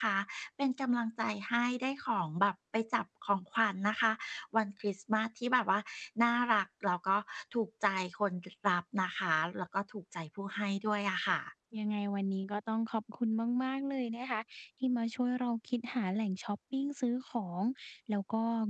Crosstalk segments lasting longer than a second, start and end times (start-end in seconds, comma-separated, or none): none